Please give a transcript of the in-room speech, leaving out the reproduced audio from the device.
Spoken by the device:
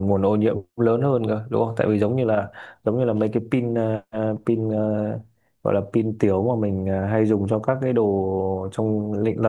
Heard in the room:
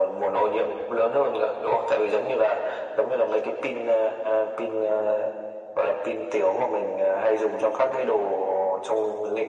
none

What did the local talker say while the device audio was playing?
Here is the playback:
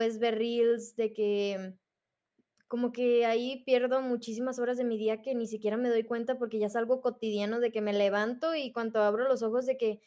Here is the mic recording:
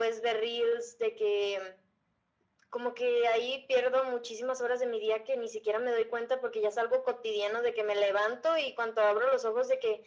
none

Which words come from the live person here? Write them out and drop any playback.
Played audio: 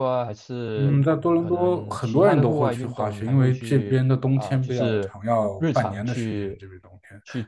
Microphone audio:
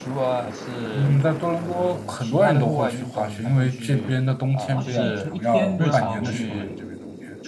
滑雪一天一天都要花我一百

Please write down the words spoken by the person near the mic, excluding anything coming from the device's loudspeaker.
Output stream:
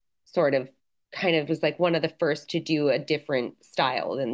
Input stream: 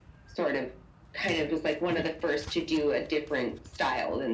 Yeah. Yeah.

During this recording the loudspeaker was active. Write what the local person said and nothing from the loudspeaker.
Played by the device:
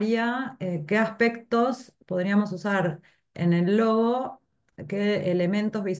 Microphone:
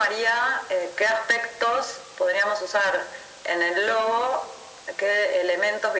none

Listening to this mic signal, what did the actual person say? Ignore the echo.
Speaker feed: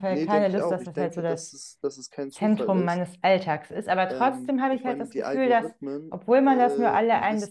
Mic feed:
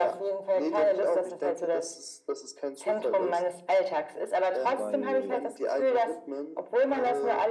weil

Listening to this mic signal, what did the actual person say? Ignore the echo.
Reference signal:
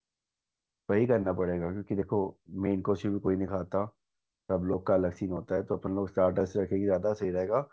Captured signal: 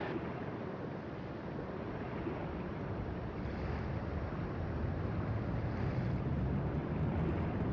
none

